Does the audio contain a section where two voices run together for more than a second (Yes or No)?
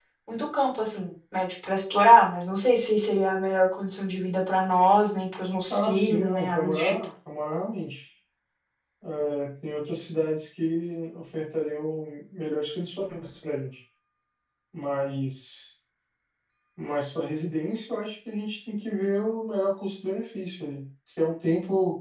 Yes